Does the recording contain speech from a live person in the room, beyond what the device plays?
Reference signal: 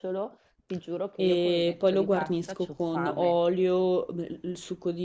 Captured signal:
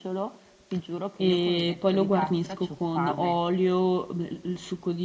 No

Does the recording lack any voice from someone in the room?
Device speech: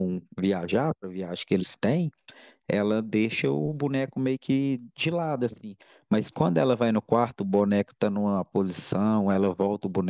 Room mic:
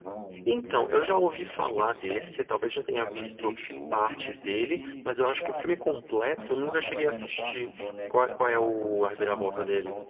No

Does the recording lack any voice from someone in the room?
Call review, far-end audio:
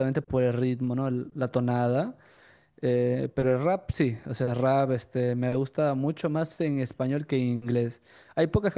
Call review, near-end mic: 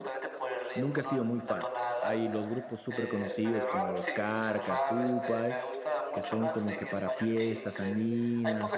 No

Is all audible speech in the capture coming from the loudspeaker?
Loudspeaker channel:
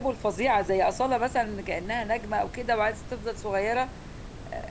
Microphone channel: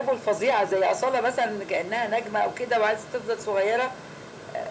Yes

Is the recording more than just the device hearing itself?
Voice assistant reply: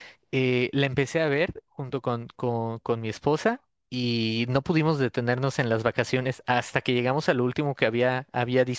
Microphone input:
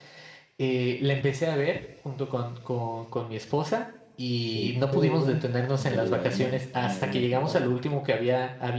Yes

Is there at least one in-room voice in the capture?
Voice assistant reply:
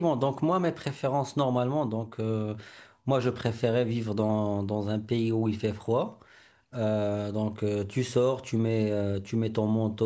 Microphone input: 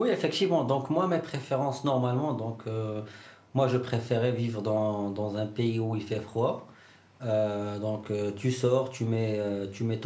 No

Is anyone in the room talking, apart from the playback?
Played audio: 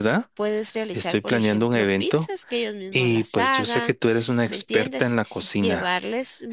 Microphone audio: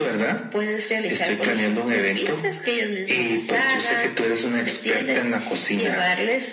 No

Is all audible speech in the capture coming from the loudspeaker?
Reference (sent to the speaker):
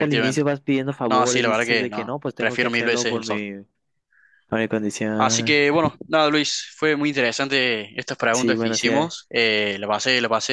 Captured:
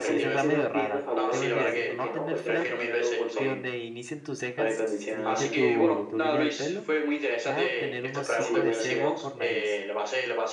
No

